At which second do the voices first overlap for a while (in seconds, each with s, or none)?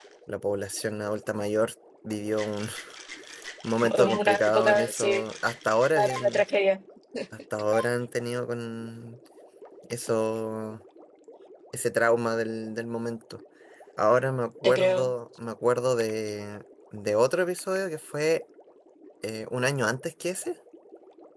3.9 s